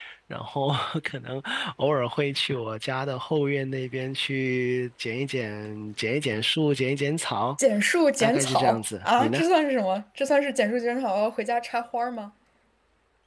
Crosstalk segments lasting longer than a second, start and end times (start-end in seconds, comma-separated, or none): 8.2-9.4